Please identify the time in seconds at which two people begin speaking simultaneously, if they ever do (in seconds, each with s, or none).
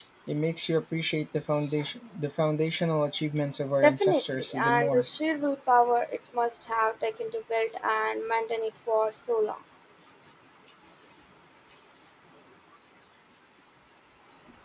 3.8 s